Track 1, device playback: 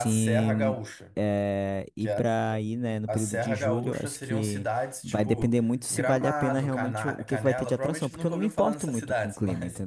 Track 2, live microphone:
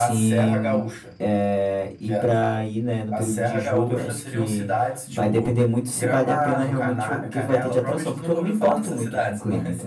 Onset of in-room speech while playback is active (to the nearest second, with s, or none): none